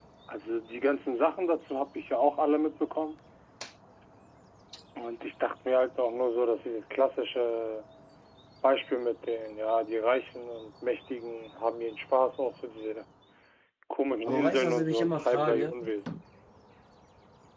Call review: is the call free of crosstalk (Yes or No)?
No